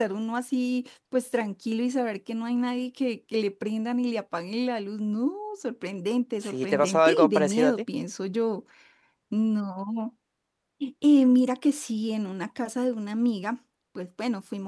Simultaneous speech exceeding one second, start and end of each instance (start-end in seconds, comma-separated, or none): 6.4-7.8